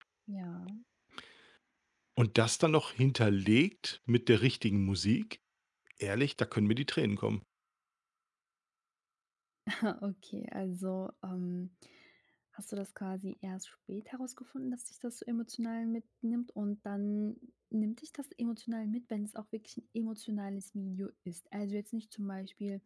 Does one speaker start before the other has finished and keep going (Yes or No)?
No